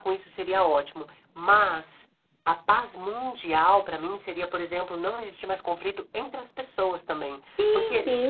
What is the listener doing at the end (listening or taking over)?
taking over